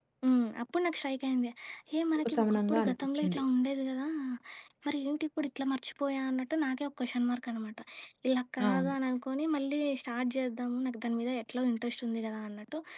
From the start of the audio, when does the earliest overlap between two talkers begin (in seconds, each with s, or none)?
2.2 s